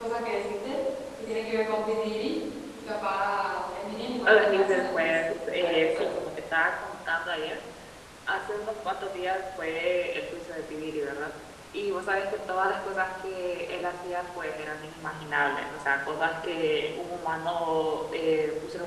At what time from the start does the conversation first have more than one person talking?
4.2 s

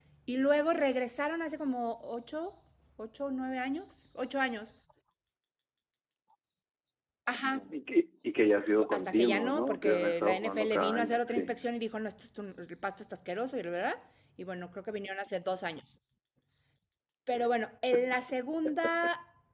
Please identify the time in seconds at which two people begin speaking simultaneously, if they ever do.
8.8 s

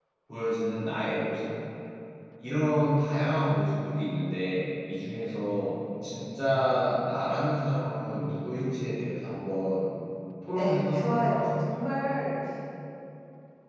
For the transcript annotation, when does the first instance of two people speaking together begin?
10.6 s

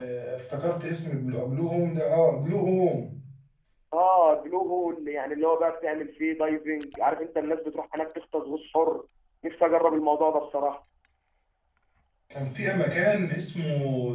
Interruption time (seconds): none

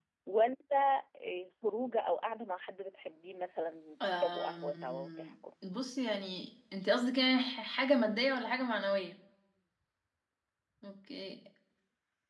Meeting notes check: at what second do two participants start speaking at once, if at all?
4.0 s

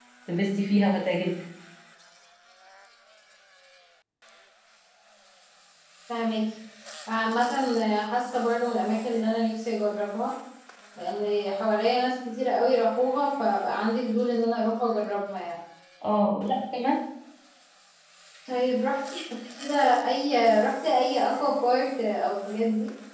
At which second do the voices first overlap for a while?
none

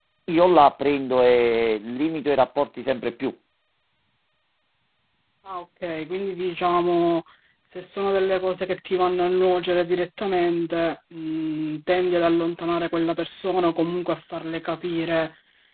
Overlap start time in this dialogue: none

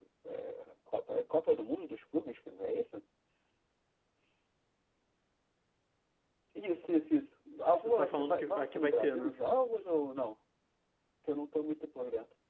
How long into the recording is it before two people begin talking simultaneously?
7.7 s

